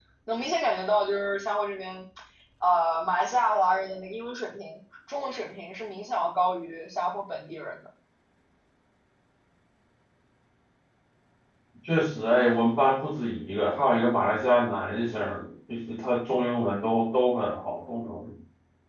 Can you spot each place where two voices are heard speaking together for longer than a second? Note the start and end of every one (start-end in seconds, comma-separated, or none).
none